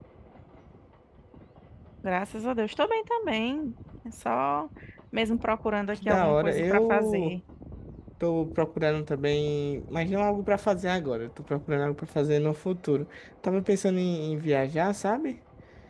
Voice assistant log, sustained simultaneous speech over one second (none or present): present